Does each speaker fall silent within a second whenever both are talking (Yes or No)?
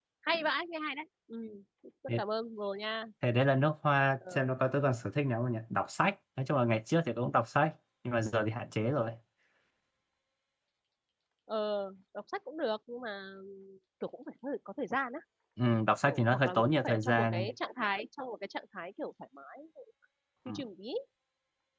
No